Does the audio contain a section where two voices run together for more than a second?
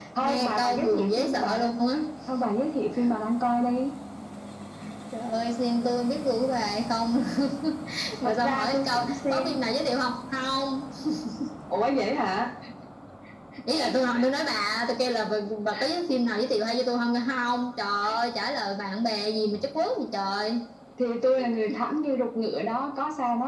Yes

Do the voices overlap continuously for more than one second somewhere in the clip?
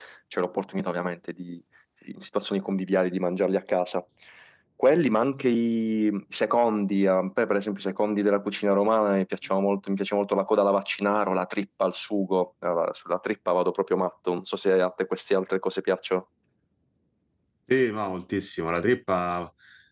No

